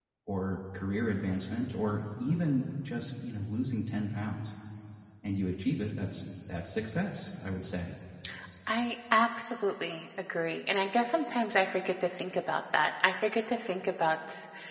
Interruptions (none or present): none